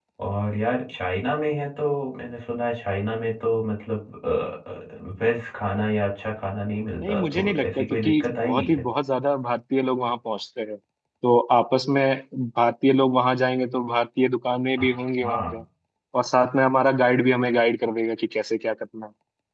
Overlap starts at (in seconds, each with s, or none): 7.0 s